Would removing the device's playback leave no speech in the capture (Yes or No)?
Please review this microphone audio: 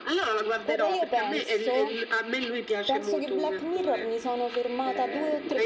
No